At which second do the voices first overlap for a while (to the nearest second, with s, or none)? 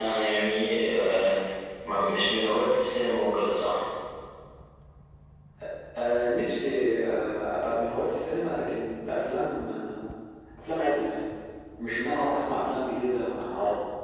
none